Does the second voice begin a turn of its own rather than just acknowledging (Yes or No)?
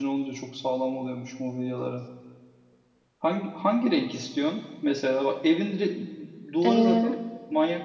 No